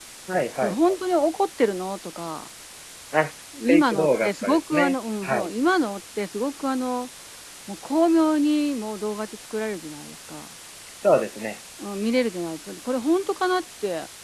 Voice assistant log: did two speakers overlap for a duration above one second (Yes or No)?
Yes